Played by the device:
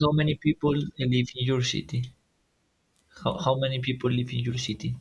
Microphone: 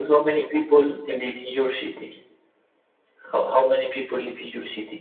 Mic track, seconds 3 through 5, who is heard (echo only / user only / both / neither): echo only